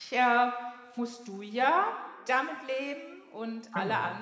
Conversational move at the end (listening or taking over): listening